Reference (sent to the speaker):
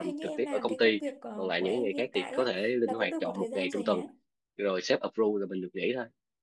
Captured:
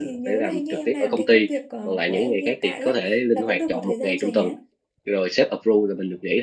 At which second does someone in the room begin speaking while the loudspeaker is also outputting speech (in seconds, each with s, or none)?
none